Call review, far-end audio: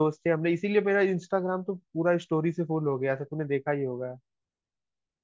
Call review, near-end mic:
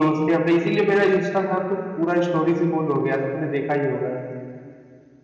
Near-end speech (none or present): none